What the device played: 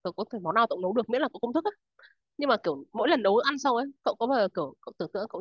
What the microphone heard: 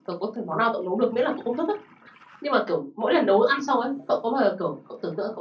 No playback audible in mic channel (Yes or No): No